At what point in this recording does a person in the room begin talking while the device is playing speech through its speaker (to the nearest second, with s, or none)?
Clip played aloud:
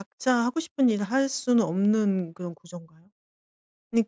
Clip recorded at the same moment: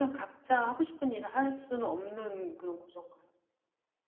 none